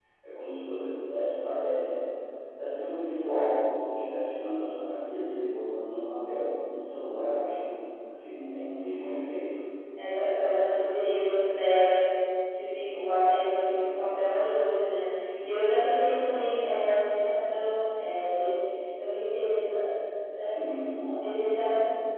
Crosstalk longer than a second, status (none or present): none